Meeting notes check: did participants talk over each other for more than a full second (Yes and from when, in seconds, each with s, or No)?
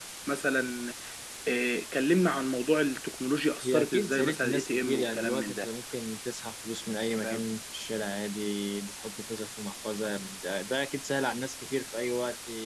Yes, from 3.6 s